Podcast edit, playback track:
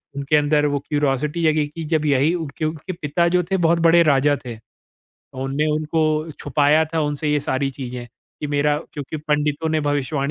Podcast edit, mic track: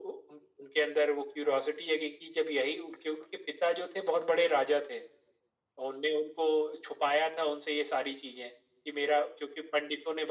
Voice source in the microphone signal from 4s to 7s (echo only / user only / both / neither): echo only